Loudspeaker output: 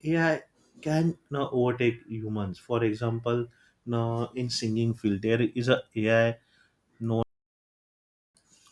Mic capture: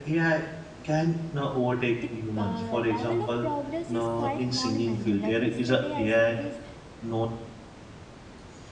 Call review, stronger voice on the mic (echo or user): echo